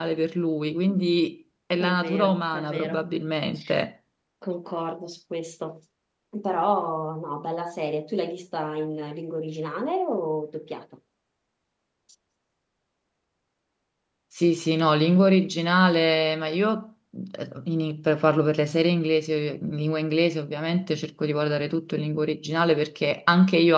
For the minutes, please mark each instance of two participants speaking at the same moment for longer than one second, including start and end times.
1.8-3.0

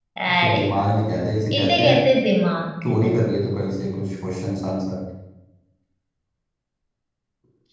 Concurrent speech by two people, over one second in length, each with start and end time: none

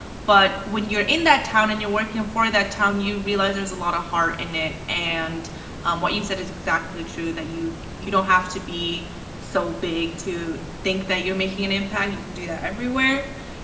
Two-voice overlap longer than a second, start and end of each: none

